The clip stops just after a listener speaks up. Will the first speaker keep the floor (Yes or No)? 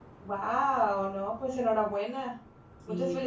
Yes